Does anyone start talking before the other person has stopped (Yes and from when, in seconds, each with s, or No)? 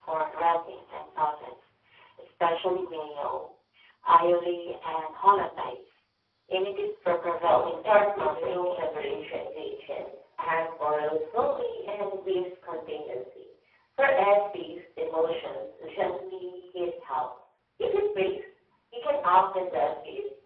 Yes, from 7.4 s